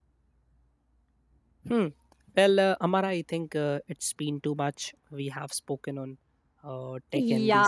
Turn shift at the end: Yes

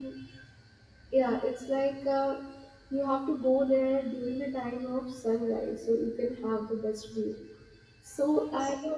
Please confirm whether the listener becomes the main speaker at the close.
Yes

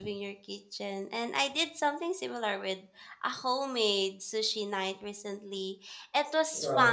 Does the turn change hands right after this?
No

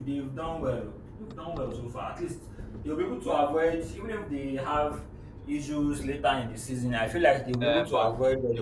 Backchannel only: No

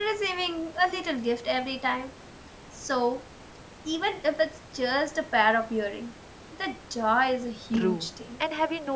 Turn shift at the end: Yes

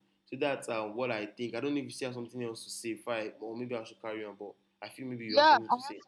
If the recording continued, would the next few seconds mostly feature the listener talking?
Yes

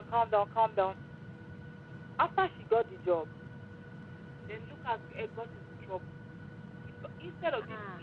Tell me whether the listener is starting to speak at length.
No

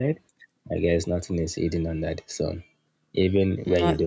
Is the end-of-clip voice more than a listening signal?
No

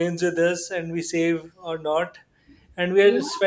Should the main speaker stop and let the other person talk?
No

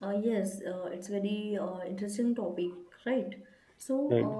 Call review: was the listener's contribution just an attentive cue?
Yes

